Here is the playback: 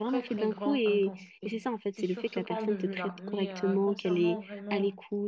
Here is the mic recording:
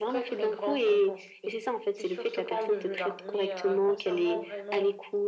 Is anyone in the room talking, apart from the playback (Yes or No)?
No